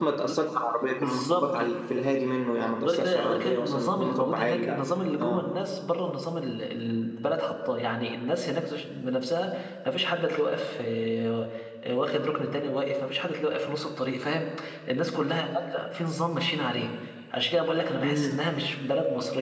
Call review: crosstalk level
present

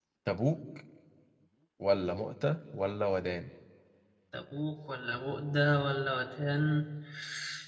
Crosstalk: none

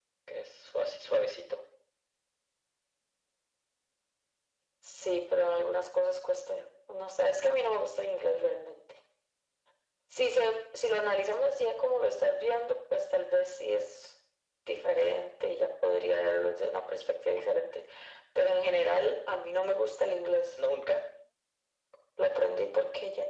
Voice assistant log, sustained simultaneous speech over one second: none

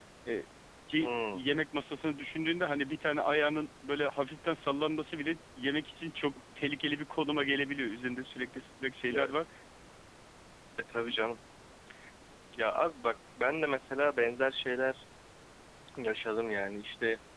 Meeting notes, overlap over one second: none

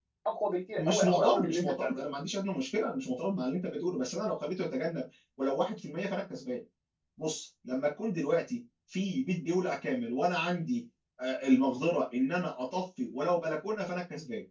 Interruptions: present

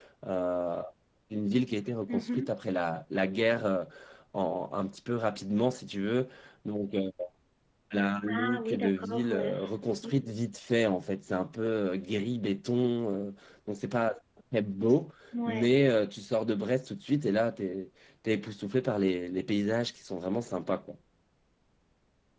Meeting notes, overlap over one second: present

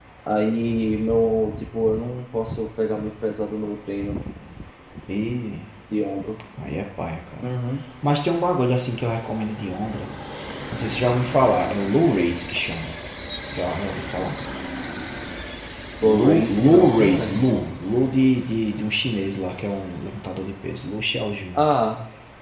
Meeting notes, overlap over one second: present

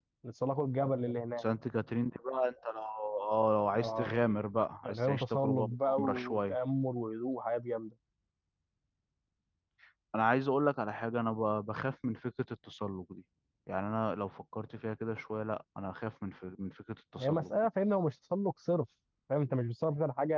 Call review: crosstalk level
present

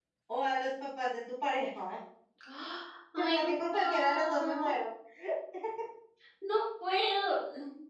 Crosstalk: present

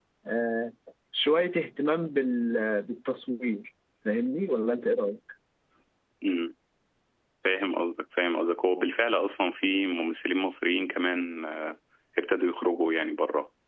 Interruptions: none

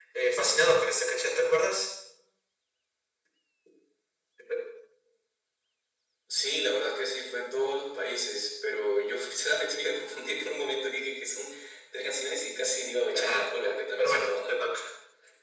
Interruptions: present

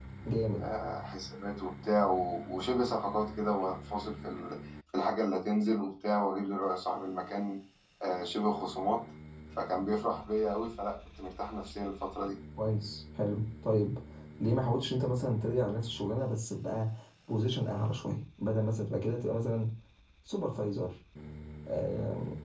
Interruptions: none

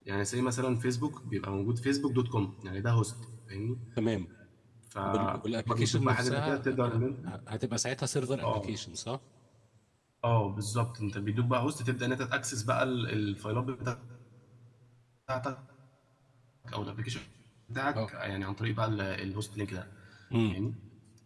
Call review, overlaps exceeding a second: present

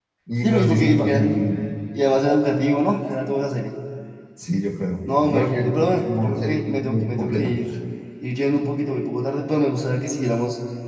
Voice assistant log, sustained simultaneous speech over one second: present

